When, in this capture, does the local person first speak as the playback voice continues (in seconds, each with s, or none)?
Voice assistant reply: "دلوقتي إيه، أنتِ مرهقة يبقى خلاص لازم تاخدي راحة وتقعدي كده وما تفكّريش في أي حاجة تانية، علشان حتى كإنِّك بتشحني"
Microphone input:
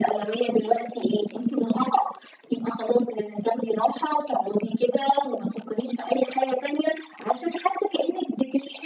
none